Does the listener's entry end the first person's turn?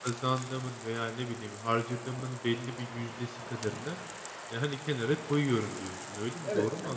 Yes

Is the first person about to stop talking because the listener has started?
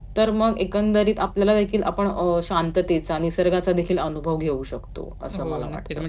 Yes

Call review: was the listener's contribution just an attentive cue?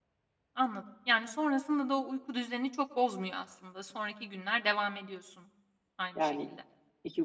No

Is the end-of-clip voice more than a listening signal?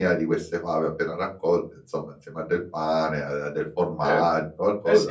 Yes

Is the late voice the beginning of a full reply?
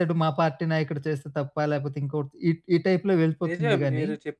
Yes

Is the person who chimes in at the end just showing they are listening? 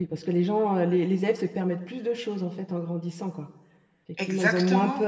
Yes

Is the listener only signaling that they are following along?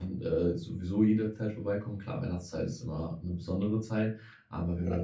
Yes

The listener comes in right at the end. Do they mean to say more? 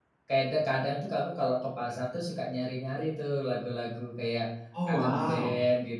No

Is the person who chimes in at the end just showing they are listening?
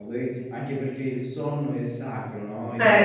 Yes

